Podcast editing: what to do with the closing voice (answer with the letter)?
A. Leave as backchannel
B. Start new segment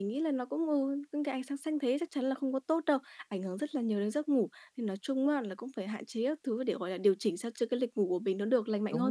B